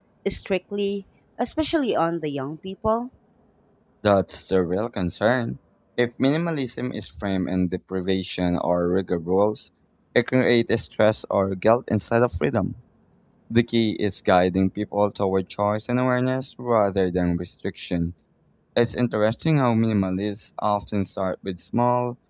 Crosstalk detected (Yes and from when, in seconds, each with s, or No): No